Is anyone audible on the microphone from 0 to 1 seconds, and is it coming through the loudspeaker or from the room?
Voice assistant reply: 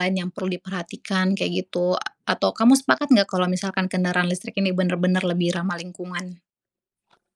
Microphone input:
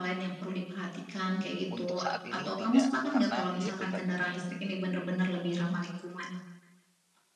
echo only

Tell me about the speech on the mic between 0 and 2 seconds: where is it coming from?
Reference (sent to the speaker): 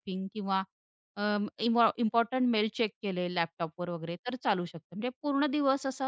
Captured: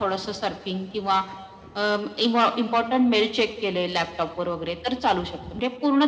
echo only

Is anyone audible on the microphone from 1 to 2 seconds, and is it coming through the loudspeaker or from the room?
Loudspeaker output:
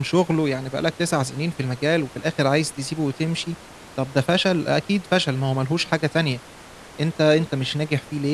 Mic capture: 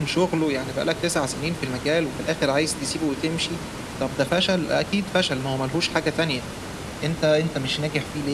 echo only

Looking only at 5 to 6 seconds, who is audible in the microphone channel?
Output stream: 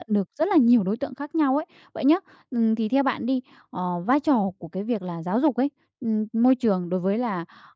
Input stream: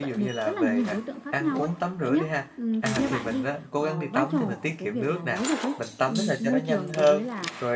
both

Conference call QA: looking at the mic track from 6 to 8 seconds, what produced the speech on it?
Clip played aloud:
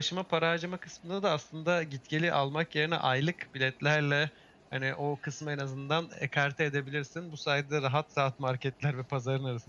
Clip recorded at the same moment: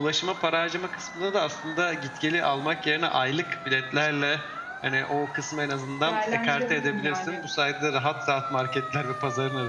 both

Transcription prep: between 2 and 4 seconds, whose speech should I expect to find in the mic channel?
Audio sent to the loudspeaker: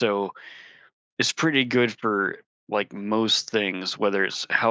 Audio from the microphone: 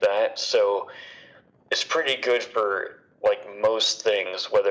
echo only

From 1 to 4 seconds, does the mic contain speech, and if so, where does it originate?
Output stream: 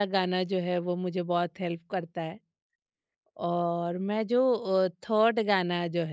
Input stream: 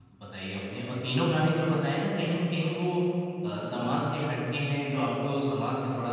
user only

